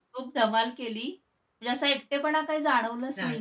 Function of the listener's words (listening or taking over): listening